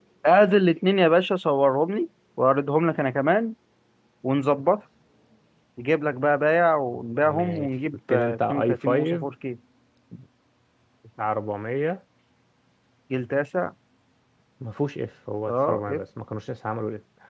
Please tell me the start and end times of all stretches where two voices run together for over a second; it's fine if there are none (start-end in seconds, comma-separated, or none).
7.2-9.3